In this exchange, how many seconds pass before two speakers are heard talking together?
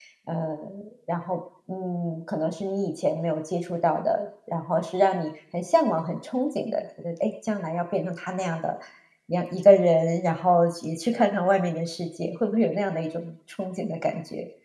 none

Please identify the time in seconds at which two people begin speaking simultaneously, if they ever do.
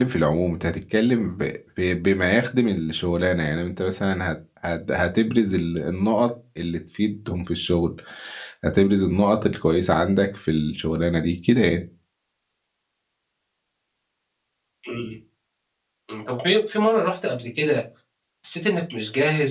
none

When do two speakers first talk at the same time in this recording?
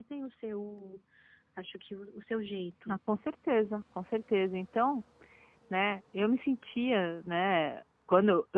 none

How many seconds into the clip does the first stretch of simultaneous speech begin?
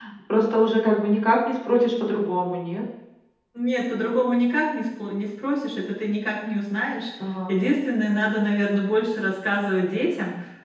none

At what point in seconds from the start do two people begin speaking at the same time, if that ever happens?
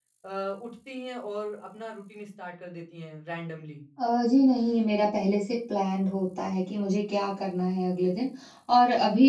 none

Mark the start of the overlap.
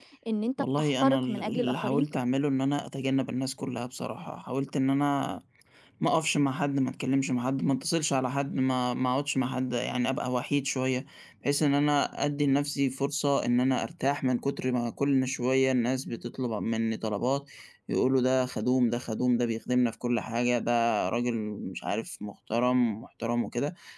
1 s

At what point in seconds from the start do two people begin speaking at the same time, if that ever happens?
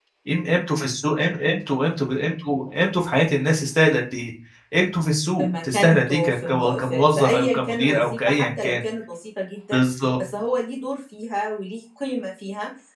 5 s

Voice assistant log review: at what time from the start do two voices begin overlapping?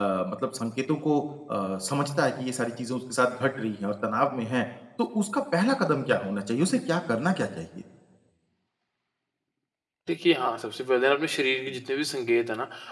none

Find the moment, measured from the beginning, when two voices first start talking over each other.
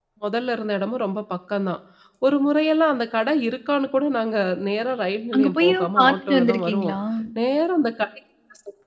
5 s

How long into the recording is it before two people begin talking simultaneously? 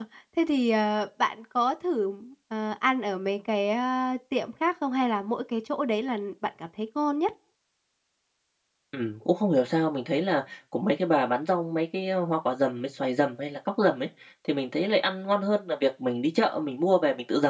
none

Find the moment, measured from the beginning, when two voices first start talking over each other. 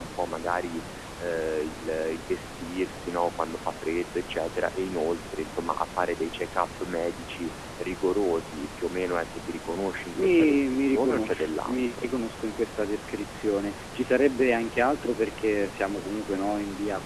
10 s

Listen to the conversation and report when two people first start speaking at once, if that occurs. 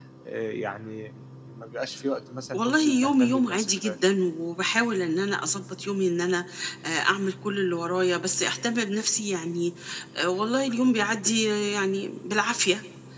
3 s

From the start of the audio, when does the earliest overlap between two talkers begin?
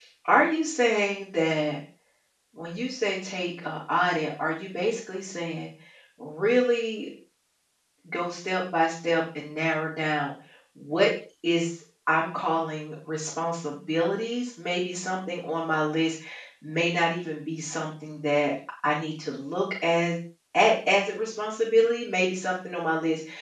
none

